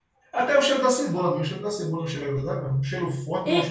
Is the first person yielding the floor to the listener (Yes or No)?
Yes